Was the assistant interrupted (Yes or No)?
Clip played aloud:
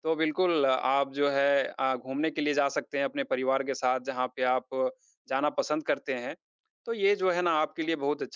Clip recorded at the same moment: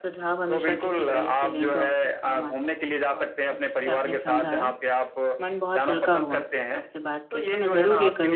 Yes